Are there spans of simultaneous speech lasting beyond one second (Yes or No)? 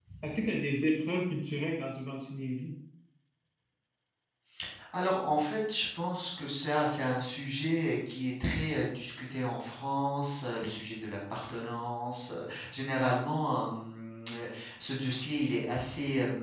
No